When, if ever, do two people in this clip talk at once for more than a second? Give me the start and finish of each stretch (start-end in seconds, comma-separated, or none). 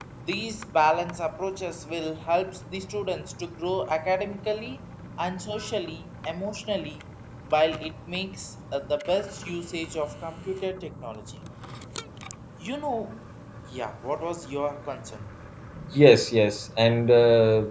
none